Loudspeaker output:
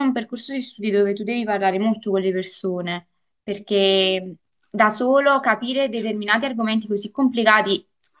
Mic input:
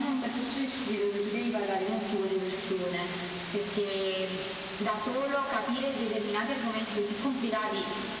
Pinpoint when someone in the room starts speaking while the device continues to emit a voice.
none

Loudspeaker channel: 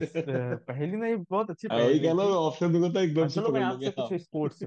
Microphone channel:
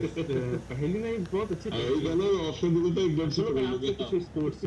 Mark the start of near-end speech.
none

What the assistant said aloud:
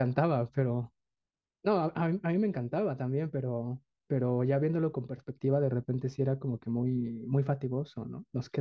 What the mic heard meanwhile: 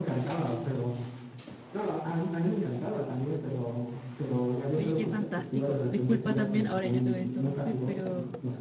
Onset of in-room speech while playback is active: 4.8 s

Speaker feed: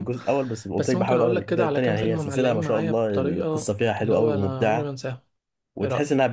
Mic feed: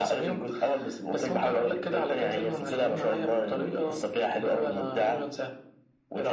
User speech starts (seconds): none

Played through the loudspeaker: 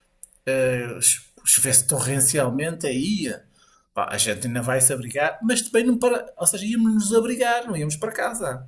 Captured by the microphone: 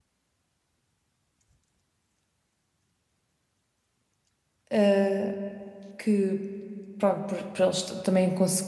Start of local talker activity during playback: 4.7 s

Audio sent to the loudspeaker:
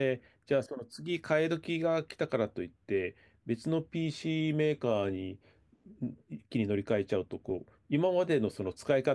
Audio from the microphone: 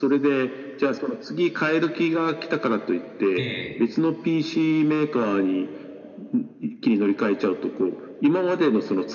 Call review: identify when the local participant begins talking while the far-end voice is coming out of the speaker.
3.4 s

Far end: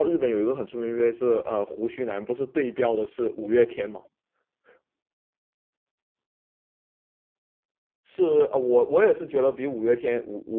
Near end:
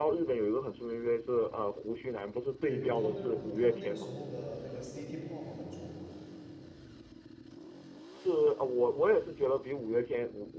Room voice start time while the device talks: 2.6 s

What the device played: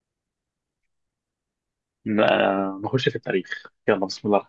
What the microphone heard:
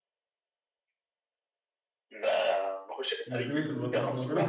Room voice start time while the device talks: 3.3 s

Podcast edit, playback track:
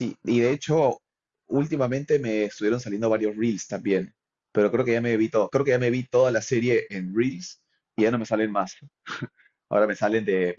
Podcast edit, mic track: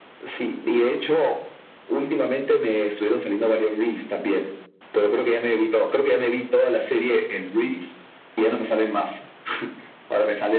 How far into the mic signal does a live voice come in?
none

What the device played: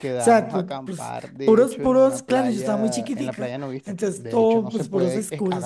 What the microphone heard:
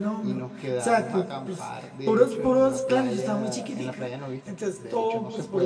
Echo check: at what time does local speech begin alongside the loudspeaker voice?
none

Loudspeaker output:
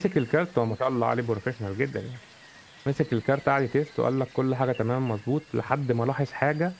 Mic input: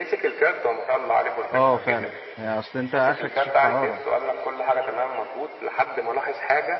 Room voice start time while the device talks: 1.5 s

